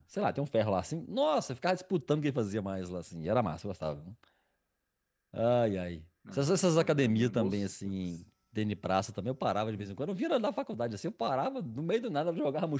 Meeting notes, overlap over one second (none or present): present